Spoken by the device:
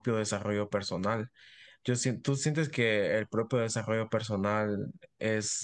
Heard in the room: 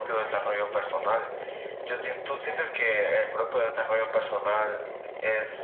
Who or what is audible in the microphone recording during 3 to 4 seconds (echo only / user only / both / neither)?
echo only